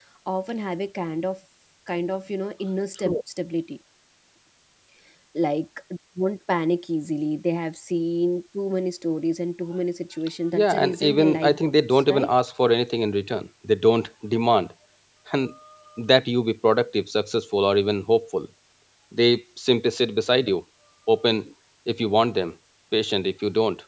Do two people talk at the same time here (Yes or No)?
Yes